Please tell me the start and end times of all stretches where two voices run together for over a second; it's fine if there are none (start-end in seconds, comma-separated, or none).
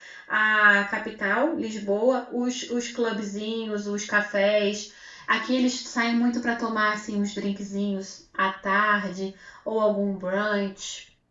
none